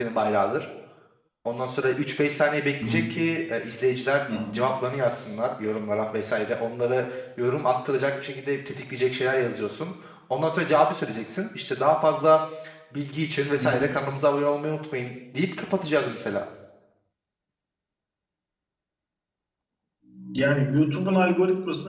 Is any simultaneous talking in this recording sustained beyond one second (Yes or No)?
No